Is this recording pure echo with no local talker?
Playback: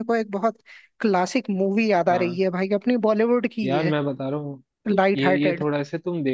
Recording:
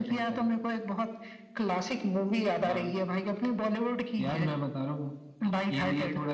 Yes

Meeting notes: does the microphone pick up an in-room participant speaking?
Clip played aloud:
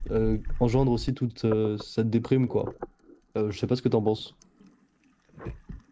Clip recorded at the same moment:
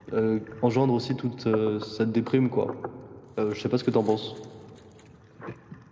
No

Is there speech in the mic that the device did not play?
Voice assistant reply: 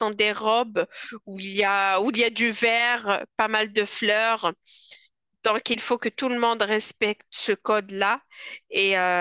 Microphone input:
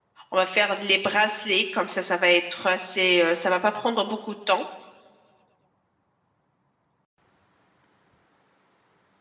Yes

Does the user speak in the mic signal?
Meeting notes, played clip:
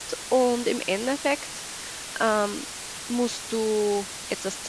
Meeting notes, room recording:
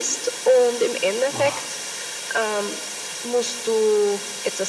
Yes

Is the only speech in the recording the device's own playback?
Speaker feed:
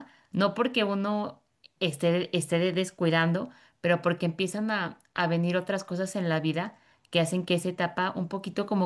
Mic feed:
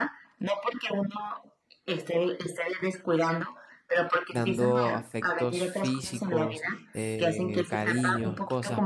No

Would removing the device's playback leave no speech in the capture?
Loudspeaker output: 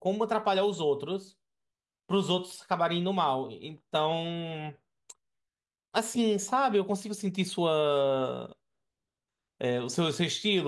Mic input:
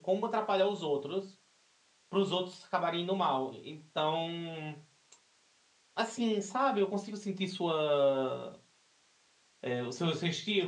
Yes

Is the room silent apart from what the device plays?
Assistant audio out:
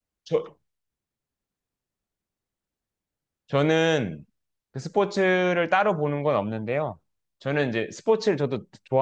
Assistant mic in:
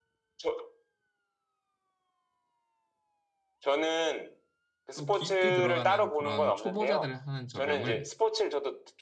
No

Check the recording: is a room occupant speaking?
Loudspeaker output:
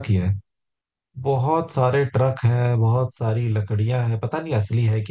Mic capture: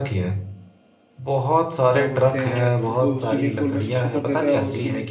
Yes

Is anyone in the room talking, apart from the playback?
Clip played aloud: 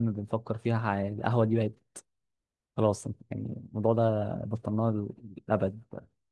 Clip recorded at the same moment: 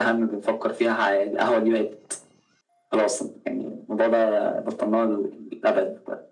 No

